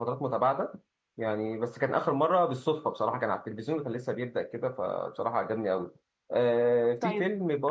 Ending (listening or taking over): taking over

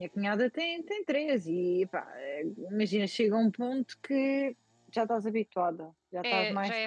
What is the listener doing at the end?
taking over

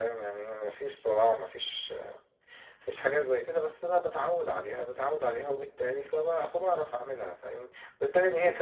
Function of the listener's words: listening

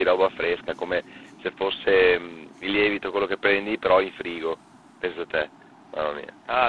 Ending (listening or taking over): taking over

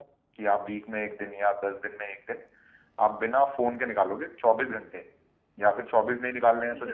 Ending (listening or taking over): taking over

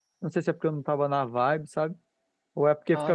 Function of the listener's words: listening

